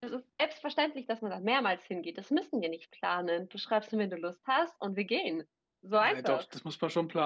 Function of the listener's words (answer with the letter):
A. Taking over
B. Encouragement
A